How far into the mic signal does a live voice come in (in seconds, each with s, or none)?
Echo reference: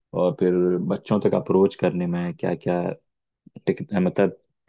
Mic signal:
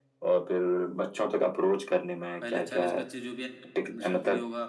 2.4 s